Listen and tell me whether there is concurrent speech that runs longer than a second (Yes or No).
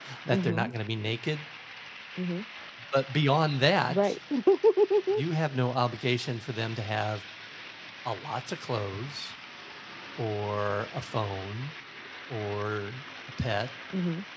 No